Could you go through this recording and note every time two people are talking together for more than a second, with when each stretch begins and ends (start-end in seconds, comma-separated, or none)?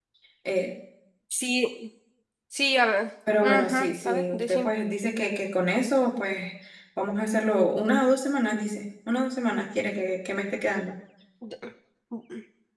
3.4-4.7